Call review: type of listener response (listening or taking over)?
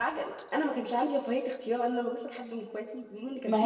taking over